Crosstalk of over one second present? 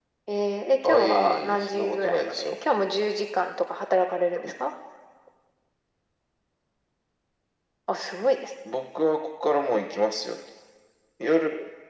Yes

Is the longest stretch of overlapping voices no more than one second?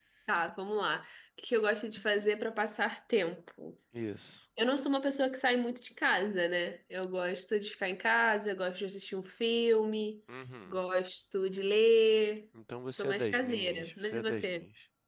No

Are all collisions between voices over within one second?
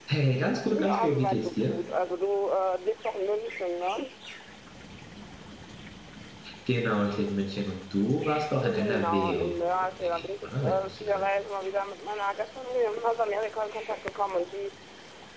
No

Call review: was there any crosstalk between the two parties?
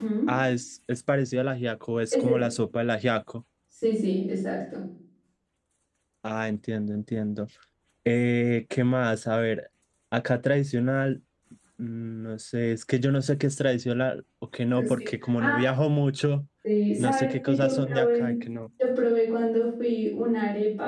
Yes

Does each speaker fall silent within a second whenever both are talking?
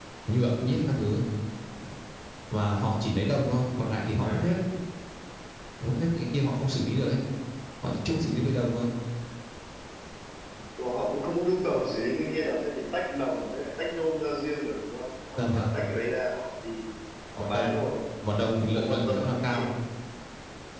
No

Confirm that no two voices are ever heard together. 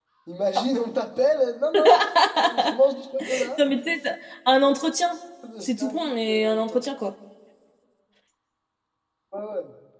No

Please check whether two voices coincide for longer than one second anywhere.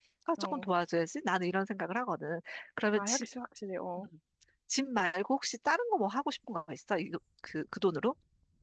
No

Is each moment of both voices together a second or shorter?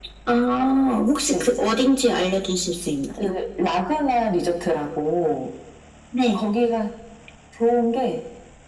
Yes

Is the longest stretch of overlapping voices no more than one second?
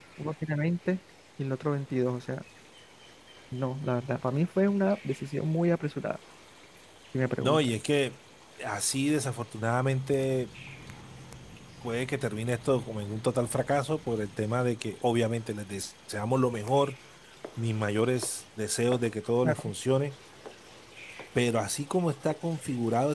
Yes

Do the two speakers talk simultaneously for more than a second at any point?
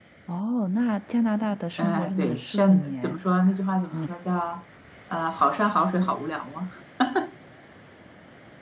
Yes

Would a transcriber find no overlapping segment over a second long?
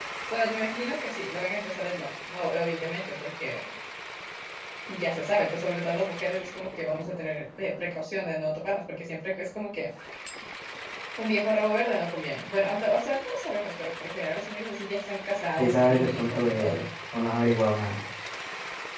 No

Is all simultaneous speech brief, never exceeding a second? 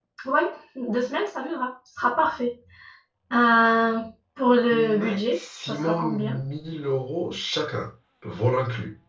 No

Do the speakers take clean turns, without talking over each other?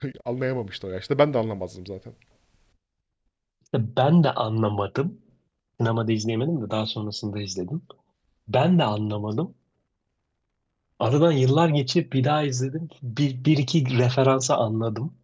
Yes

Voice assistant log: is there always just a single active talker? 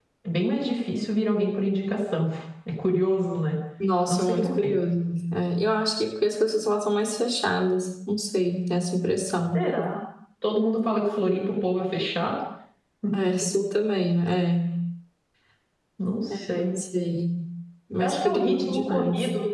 No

